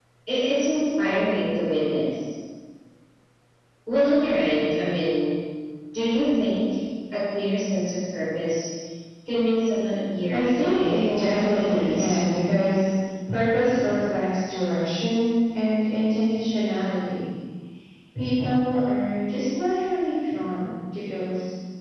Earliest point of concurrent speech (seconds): 10 s

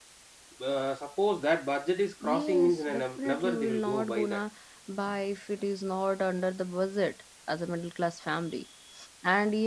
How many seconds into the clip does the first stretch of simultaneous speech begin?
2 s

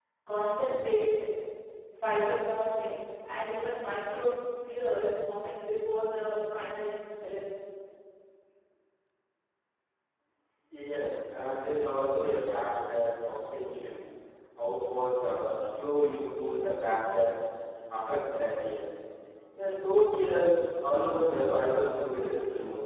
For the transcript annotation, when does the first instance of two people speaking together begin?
none

